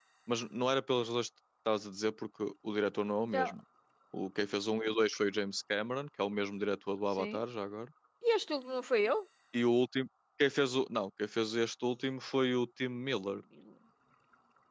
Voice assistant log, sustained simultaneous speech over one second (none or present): none